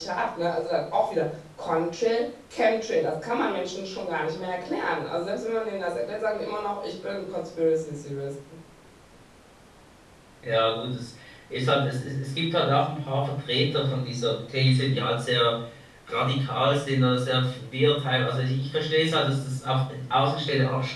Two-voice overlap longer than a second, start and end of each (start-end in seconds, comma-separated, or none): none